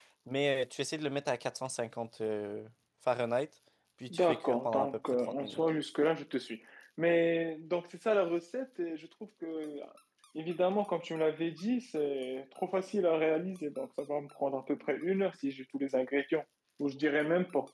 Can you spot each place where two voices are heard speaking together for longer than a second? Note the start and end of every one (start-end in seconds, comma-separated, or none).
4.1-5.6